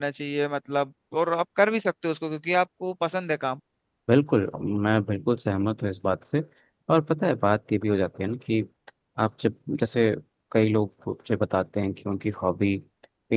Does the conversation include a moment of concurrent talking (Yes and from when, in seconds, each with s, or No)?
No